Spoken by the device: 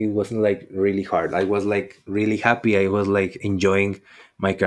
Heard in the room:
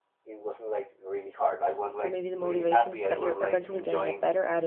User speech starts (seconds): 2 s

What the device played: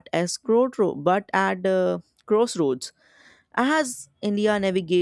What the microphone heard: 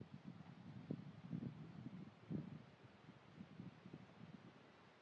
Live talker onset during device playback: none

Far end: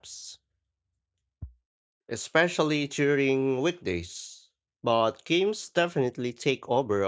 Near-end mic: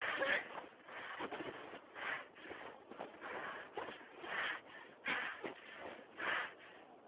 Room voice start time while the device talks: none

